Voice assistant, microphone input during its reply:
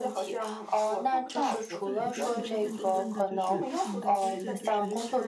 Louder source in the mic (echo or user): echo